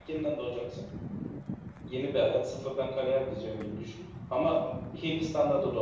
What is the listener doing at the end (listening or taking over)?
listening